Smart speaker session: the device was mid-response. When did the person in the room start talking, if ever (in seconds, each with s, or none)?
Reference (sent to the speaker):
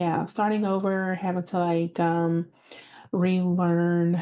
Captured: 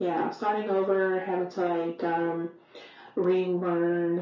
none